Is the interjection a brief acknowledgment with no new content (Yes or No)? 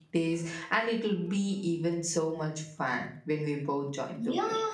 No